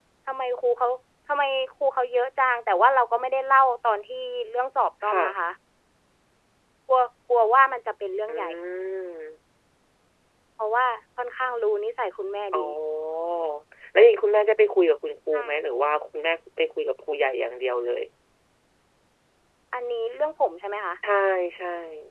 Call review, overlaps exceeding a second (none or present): none